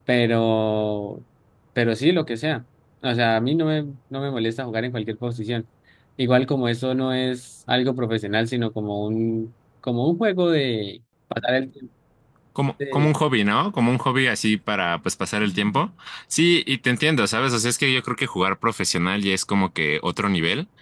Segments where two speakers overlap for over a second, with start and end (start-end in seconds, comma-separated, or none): none